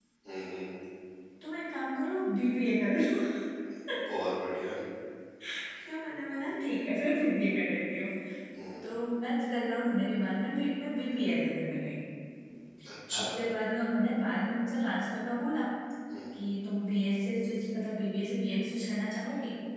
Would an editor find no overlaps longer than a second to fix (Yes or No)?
Yes